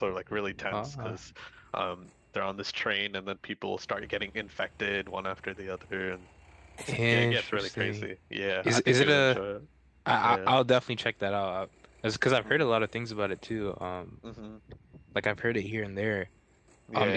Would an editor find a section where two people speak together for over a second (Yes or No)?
Yes